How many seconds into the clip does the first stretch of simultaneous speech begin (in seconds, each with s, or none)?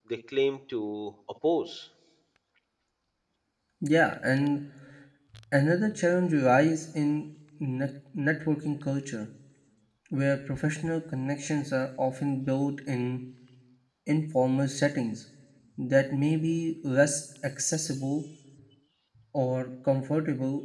none